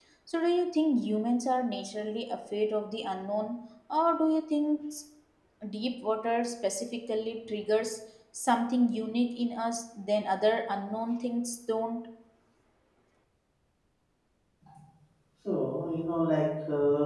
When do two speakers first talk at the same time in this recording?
none

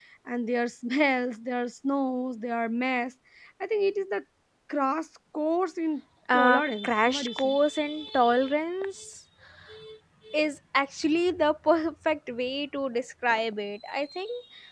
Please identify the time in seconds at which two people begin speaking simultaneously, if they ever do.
6.3 s

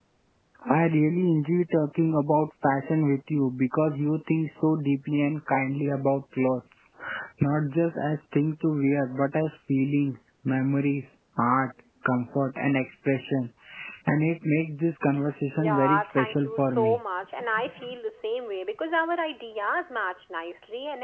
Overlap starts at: 15.5 s

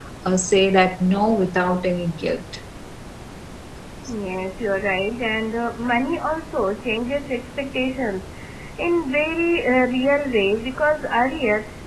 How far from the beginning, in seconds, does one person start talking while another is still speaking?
none

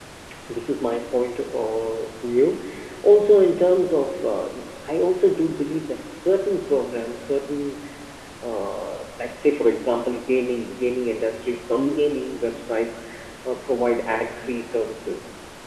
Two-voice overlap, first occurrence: none

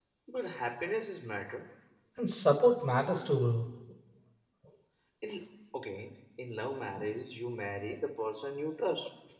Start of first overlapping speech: none

